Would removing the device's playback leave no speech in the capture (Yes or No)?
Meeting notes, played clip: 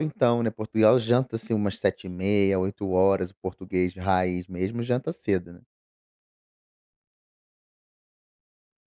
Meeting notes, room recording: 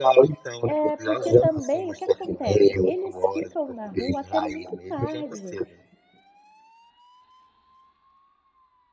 No